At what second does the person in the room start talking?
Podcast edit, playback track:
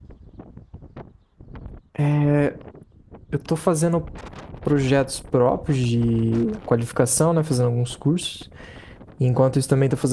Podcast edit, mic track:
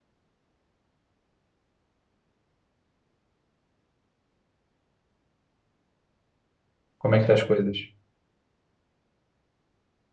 7.0 s

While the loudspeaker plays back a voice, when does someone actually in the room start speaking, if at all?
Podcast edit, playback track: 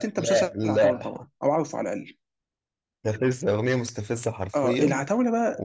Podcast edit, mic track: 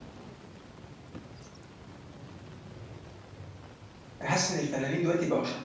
4.2 s

